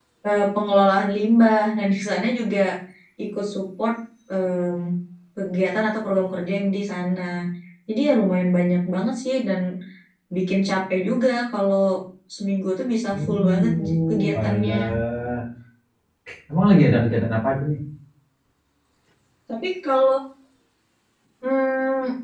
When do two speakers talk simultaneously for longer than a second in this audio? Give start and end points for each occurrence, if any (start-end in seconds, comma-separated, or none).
13.1-14.8